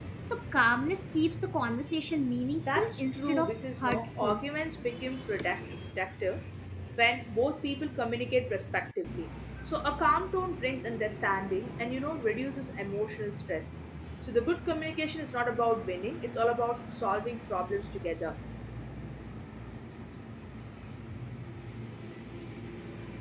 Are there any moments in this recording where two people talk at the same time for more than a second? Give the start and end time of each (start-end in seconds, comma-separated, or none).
2.6-4.4